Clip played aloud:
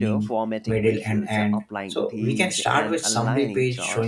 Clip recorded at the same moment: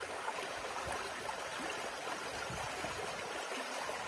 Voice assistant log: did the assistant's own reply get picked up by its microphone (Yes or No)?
No